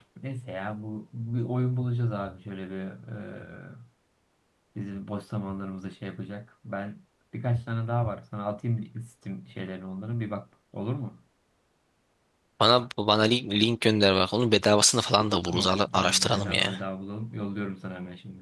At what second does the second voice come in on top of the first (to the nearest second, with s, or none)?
15 s